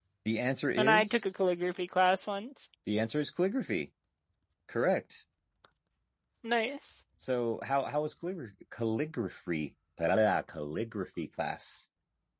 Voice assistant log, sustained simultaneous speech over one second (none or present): none